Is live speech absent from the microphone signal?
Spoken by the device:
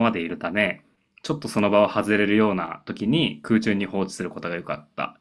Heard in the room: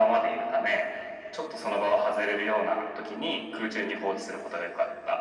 Yes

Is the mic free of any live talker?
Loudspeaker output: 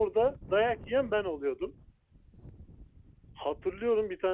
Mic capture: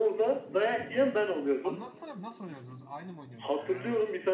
No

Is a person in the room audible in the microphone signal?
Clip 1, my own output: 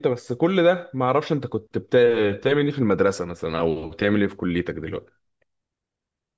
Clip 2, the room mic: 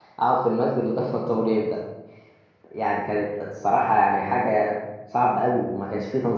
Yes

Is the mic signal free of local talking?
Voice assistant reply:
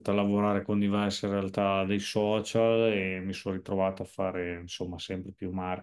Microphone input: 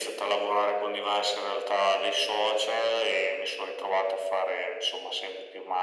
Yes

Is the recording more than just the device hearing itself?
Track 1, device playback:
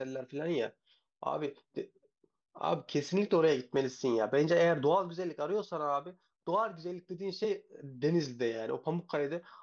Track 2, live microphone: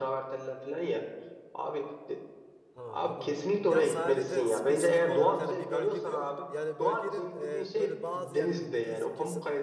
Yes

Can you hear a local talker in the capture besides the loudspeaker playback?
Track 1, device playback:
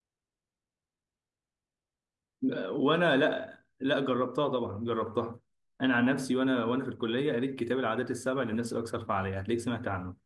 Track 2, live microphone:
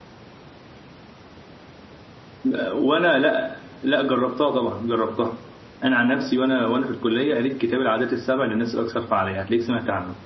No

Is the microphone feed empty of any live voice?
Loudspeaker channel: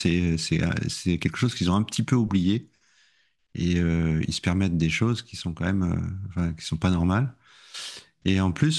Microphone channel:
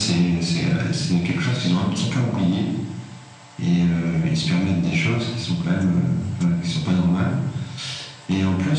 Yes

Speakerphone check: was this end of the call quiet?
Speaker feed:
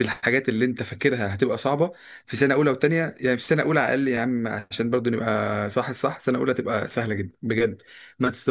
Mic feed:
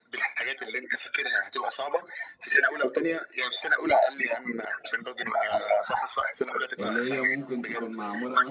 No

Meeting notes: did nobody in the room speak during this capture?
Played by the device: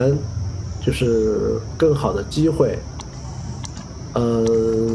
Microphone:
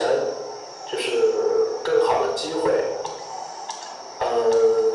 Yes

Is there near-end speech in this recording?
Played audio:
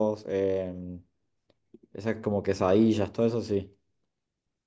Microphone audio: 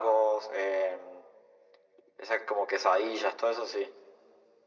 No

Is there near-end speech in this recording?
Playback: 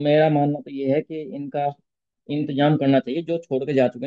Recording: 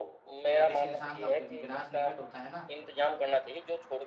Yes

